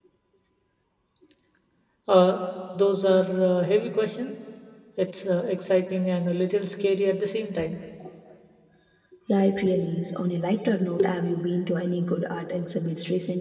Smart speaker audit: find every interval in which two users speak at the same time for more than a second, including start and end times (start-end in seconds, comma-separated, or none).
none